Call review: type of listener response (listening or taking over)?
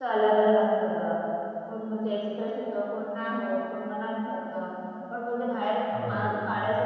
listening